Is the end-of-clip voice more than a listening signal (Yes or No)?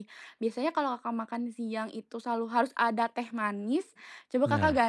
No